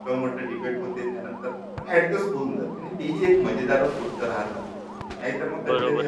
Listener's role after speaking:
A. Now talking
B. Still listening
A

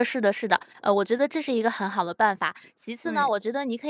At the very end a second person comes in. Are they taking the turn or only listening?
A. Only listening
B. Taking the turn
A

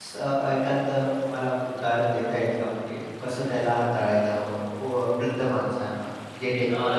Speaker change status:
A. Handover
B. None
A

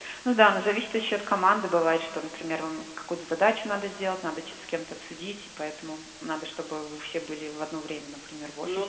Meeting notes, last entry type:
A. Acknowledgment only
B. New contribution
B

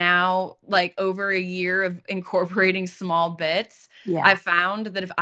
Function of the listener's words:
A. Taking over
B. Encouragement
B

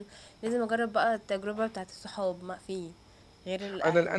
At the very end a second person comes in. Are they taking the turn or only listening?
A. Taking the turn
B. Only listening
A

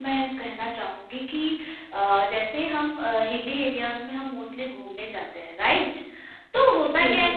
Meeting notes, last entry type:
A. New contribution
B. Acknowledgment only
B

